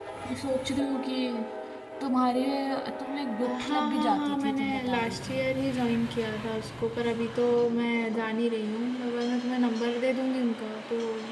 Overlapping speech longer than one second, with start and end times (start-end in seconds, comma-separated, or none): 3.4-5.4